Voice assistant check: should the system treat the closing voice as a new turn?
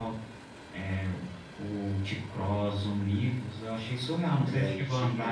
Yes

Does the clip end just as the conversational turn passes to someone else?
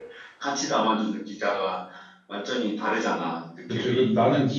Yes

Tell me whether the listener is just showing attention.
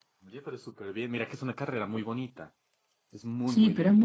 No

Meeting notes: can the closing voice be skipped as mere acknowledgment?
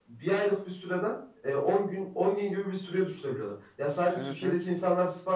Yes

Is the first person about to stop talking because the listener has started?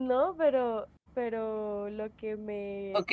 Yes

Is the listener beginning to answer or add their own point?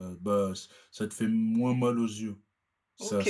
Yes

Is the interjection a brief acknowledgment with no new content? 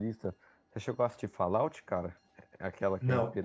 Yes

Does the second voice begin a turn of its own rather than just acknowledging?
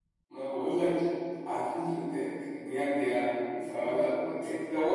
No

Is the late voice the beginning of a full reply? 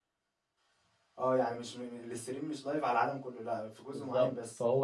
Yes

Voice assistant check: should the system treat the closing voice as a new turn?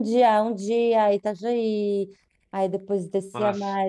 No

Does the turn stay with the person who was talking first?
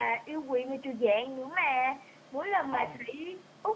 Yes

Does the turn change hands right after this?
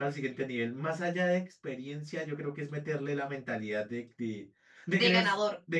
No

